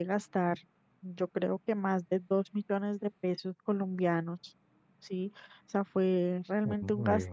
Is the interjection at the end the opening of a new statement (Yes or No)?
No